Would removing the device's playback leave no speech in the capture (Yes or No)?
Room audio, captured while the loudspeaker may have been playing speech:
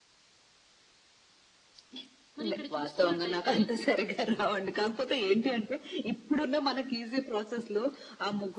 No